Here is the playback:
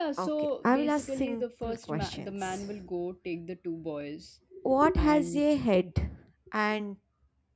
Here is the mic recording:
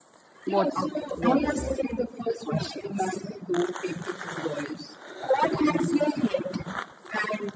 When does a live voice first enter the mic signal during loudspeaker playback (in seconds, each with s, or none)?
0.5 s